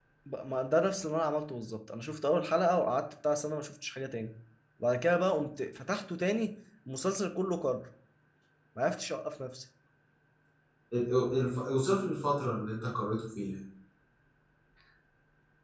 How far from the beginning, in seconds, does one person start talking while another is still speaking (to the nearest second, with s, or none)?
none